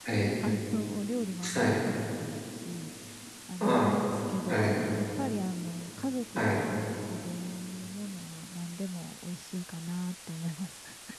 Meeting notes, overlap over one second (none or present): none